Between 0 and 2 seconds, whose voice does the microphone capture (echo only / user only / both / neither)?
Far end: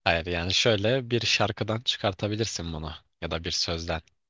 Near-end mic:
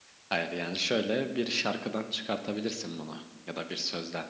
echo only